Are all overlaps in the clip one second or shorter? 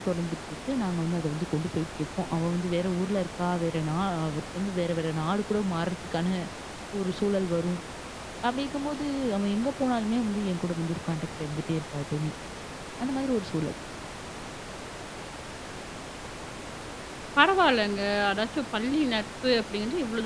Yes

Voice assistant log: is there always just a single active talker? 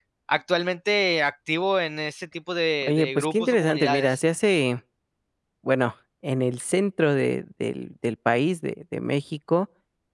No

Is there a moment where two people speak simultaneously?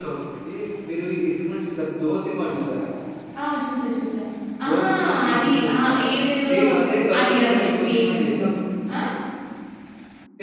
Yes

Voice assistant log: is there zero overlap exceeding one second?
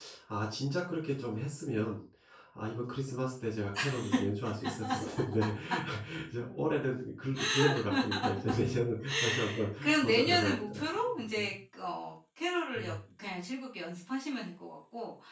No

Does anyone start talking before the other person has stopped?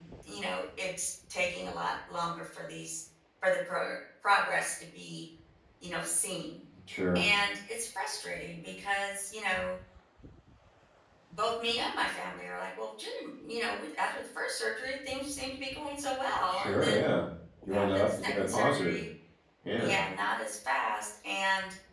Yes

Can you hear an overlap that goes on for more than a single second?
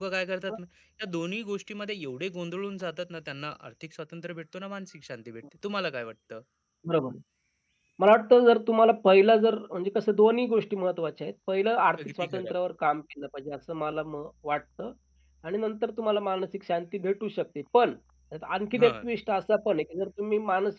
No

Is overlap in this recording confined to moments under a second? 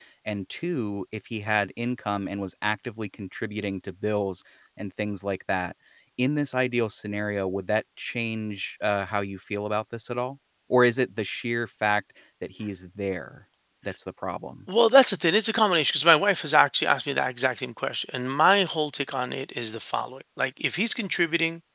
Yes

